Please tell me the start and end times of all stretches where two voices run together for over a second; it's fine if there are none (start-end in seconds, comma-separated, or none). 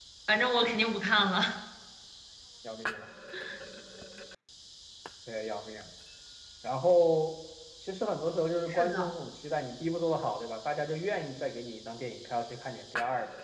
none